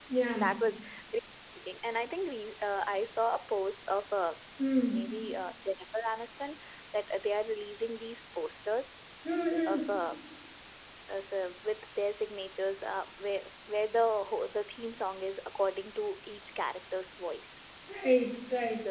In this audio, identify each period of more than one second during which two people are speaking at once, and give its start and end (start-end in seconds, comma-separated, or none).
none